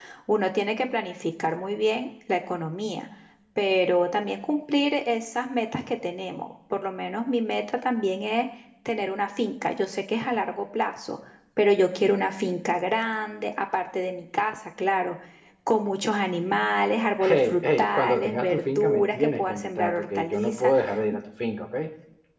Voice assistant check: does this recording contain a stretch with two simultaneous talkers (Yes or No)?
Yes